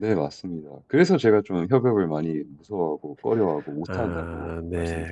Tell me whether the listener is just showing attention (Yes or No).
No